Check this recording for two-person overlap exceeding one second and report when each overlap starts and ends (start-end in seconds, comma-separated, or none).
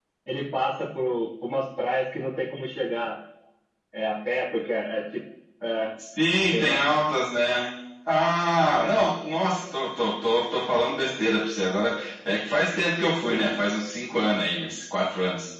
none